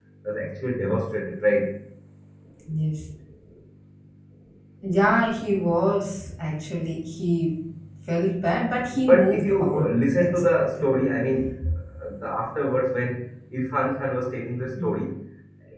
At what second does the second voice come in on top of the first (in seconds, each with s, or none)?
8.9 s